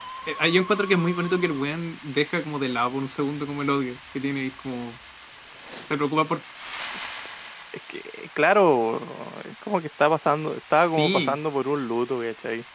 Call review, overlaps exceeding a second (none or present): none